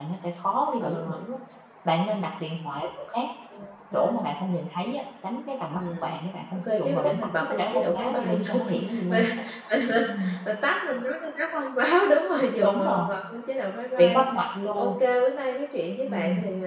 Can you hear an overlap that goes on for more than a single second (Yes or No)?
Yes